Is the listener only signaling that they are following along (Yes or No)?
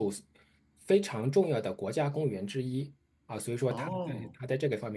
Yes